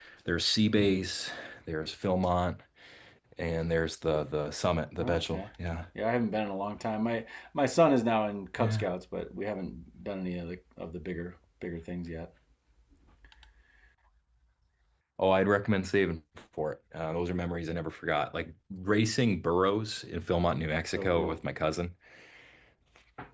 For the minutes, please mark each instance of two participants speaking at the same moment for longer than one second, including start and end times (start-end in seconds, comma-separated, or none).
none